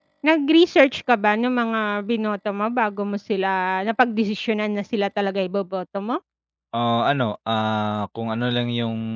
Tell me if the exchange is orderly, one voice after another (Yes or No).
Yes